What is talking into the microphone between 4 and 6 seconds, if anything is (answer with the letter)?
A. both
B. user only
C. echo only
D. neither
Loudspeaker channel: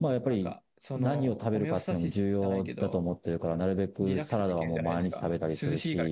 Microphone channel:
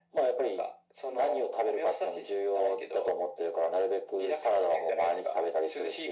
C